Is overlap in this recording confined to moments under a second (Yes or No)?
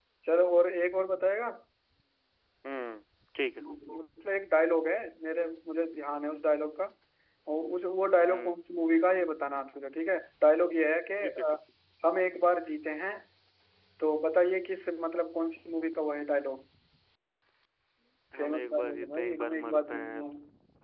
No